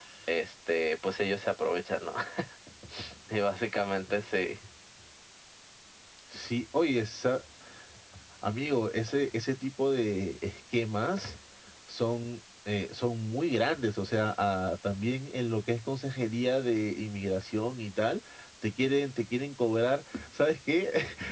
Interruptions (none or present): none